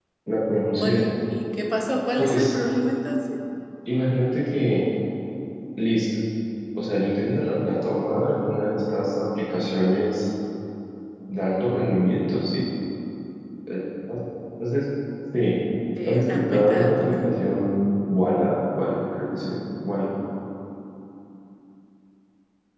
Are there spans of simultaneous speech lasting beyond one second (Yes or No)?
Yes